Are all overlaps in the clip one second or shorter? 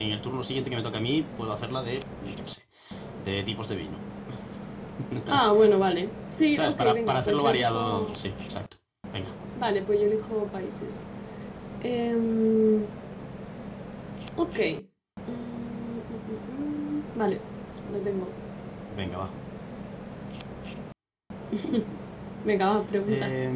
No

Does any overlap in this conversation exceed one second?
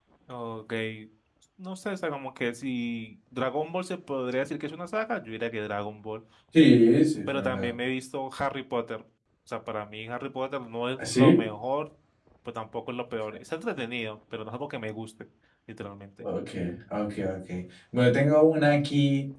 No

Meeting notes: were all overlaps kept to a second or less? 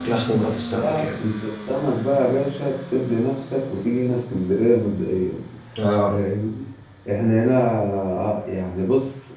Yes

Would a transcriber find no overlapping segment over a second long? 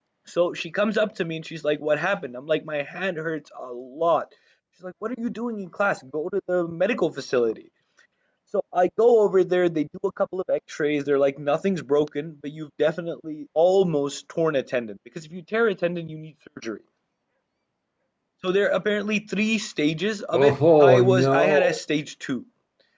No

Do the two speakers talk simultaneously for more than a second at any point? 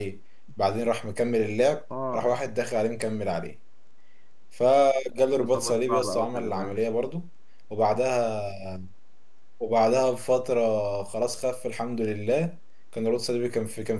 Yes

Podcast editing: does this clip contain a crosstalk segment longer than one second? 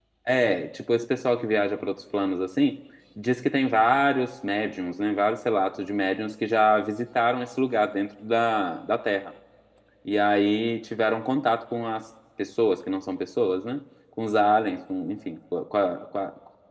No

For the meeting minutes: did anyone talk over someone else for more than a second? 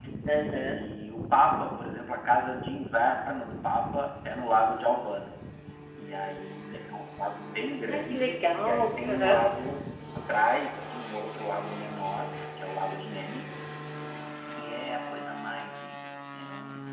Yes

